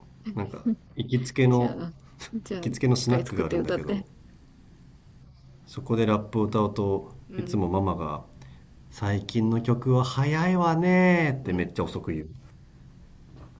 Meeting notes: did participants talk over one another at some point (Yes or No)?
Yes